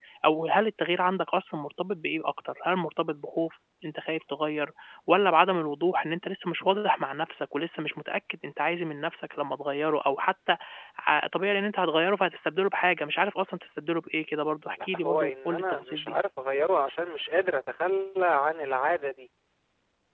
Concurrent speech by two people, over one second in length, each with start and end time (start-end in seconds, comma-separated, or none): 14.8-16.1